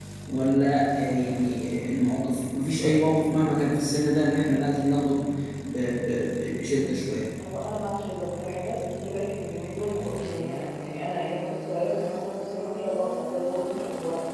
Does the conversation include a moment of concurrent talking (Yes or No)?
No